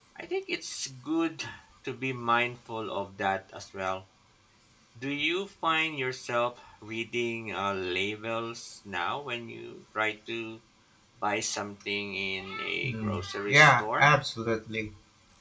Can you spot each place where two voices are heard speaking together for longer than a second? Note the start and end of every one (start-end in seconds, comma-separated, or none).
12.8-14.1